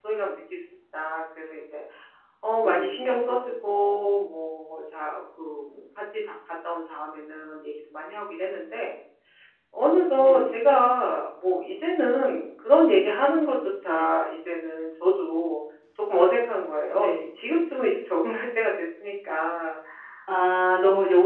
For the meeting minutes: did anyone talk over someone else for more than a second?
No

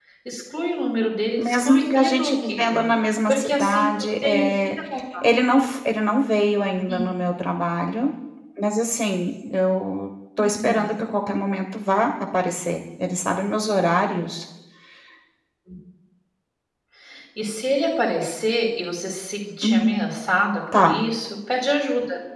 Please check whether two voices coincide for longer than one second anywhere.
Yes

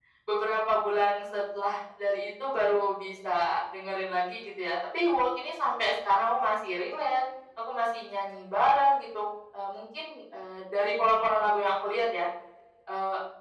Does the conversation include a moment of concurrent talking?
No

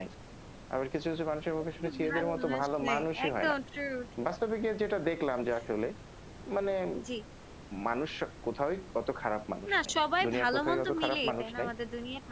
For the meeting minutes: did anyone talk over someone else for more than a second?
Yes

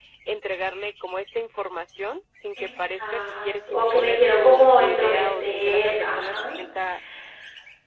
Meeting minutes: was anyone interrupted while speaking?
Yes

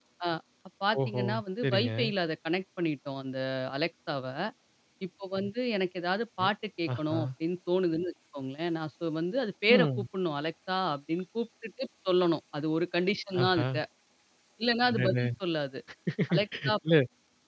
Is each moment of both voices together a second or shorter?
Yes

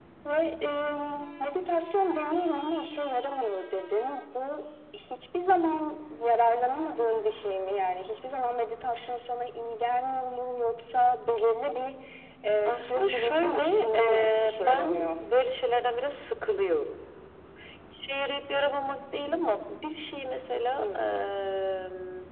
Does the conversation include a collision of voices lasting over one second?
Yes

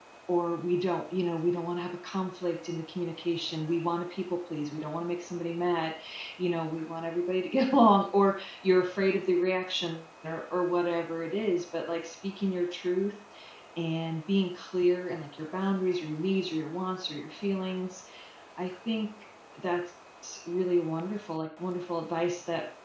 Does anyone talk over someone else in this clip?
No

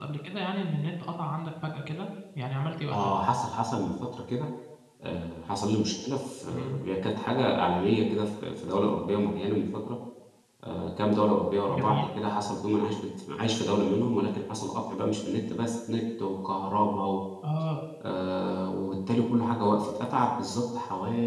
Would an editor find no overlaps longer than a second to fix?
Yes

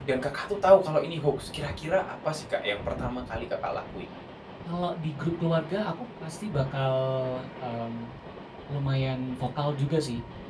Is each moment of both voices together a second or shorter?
Yes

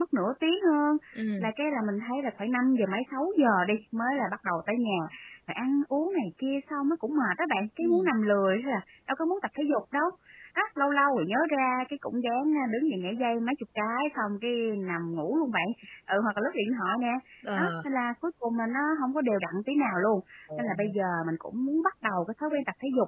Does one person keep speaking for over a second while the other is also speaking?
No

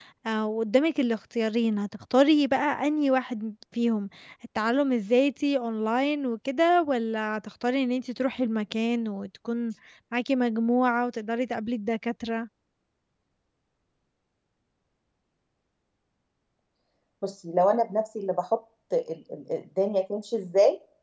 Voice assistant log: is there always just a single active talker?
Yes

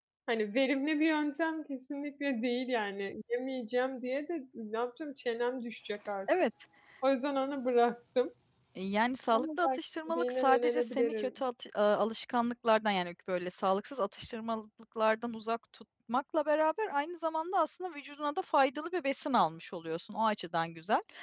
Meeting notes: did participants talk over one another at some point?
Yes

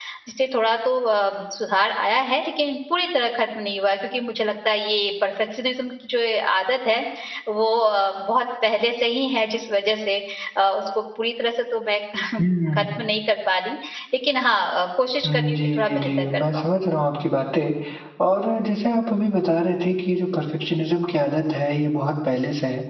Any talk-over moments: Yes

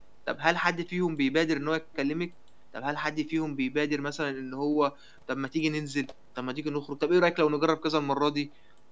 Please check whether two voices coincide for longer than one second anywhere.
No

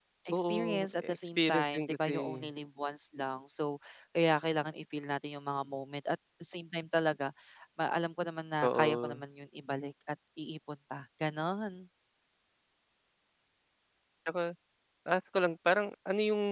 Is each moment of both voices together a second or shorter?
No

